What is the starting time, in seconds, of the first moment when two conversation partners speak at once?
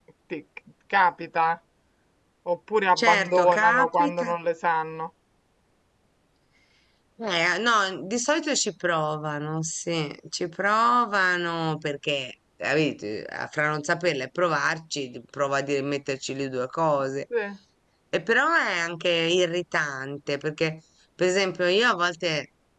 3.0 s

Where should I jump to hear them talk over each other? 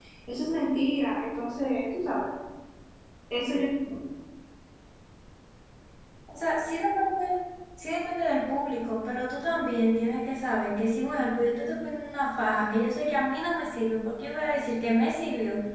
none

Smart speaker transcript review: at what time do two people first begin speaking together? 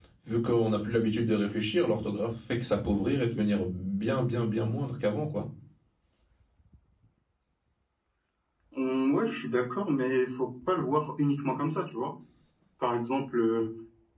none

